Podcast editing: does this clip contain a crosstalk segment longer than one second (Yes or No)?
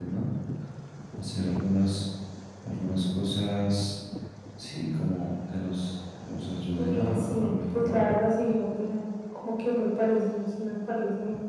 Yes